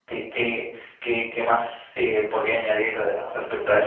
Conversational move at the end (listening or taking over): taking over